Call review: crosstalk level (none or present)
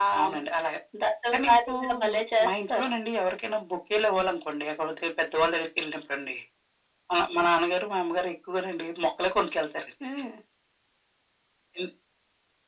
present